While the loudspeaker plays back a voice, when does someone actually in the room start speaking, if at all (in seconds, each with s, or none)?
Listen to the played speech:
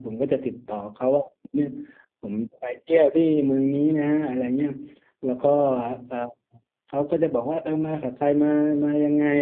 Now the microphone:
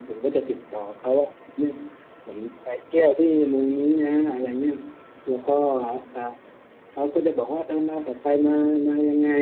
none